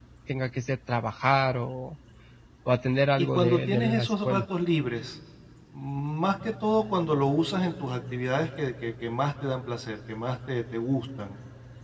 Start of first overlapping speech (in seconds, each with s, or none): 3.2 s